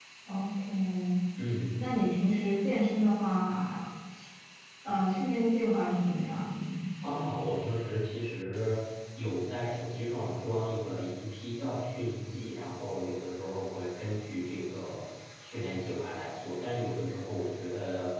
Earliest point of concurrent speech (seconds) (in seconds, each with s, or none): none